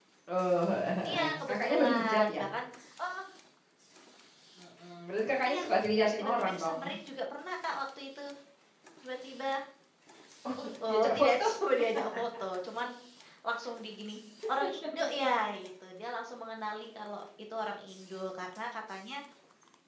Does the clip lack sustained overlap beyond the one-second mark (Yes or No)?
No